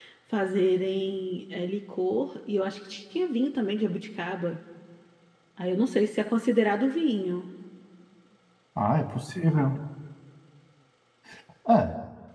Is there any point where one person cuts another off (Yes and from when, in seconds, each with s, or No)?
No